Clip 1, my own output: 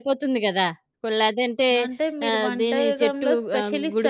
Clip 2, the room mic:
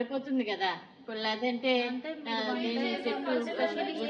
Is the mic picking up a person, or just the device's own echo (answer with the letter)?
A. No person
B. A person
B